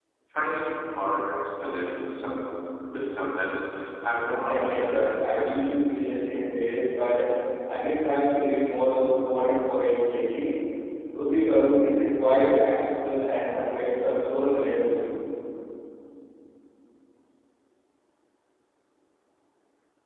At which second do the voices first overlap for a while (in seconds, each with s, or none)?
4.3 s